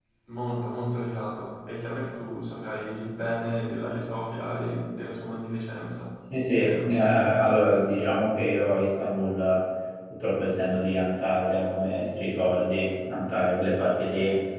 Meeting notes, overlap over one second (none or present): none